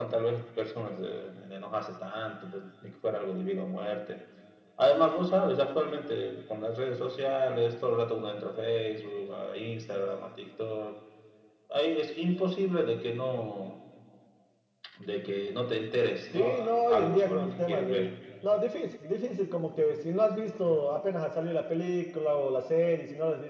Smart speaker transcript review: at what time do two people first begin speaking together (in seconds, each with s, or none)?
16.3 s